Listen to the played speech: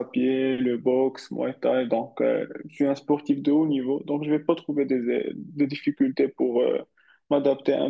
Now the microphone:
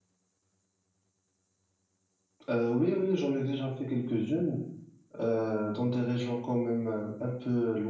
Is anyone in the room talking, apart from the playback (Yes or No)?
Yes